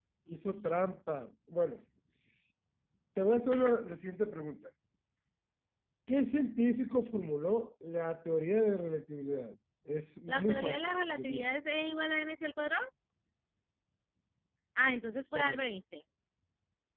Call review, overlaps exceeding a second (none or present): present